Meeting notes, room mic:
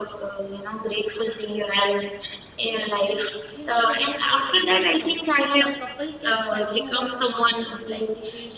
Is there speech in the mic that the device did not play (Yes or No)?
Yes